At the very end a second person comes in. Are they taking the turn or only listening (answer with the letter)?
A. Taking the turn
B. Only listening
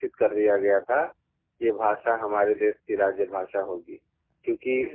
B